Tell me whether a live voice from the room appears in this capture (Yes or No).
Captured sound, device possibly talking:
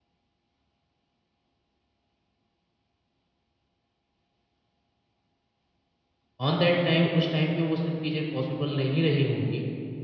Yes